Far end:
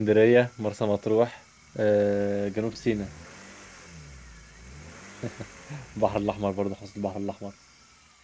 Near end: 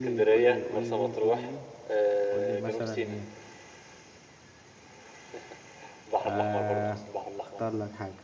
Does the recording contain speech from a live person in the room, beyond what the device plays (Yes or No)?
Yes